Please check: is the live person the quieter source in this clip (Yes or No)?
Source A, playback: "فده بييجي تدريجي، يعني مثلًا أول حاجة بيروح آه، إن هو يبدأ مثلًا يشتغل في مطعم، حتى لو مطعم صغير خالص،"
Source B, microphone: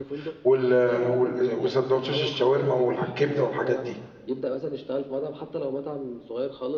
No